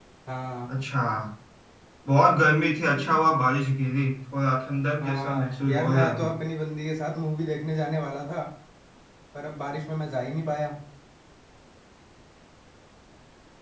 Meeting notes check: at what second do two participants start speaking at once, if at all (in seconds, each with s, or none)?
5.0 s